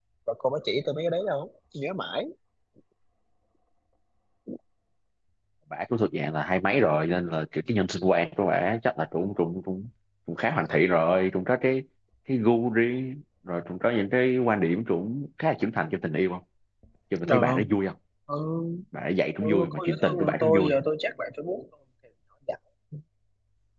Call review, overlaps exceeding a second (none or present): present